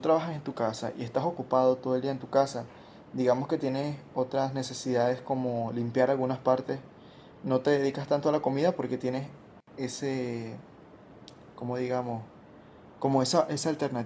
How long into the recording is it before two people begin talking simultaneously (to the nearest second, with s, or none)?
none